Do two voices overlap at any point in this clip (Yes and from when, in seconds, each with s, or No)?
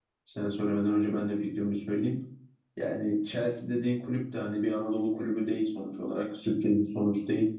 No